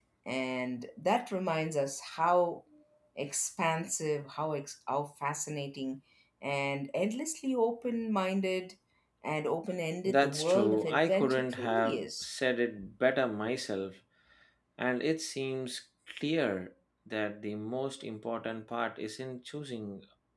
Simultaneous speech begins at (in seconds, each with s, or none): 10.1 s